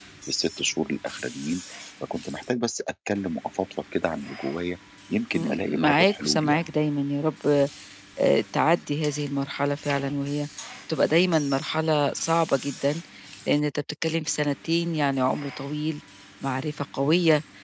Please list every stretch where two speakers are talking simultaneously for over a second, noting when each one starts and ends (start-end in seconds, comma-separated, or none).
5.3-6.6